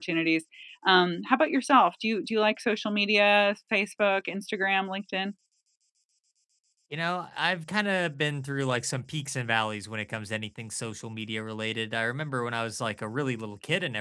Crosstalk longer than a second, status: none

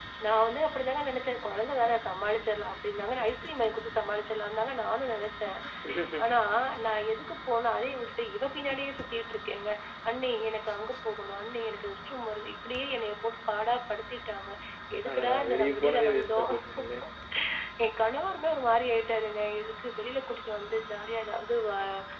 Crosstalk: present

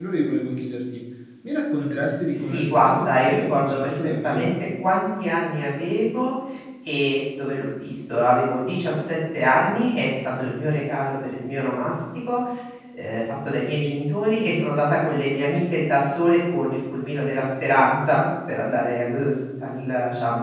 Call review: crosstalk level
present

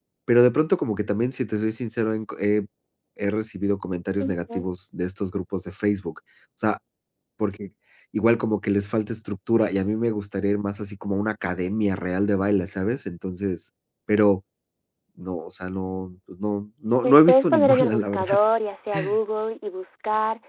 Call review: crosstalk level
present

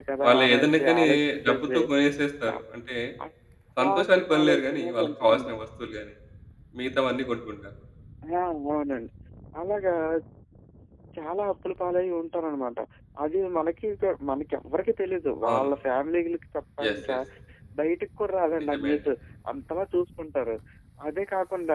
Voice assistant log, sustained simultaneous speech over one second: present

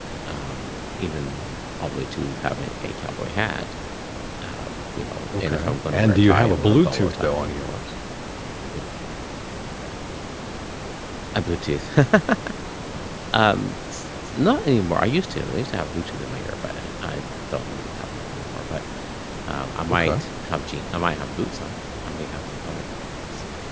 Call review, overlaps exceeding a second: present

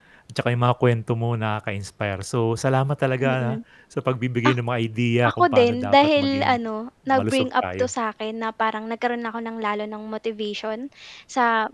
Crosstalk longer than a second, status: present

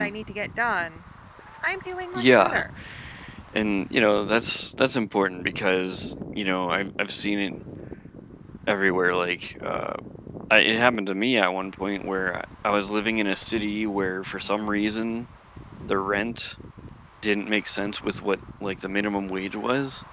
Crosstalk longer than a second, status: none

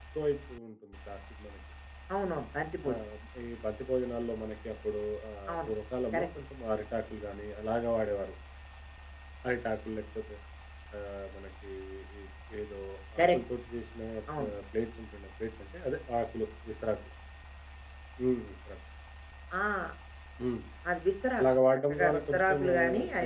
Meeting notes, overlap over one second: present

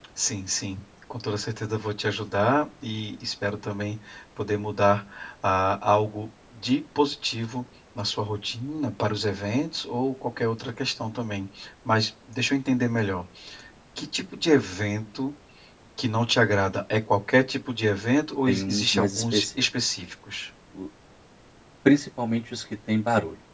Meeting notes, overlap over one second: present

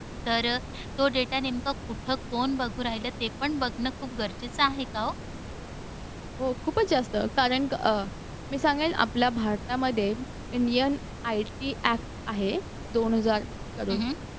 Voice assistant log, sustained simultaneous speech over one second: none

